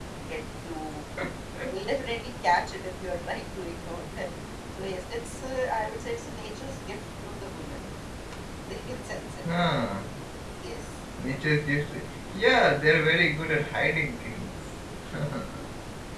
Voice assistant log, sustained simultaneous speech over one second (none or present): none